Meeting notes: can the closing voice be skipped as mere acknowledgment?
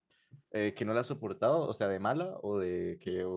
No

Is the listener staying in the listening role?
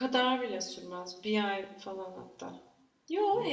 Yes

